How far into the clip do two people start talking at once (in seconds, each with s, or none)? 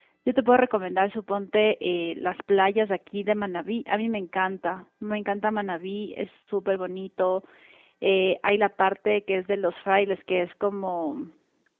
none